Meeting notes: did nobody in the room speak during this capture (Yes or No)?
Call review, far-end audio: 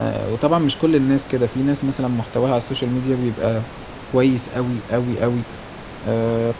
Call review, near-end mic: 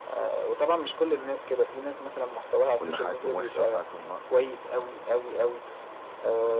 No